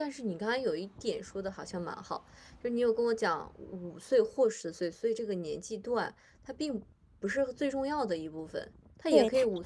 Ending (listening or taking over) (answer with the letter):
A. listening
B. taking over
B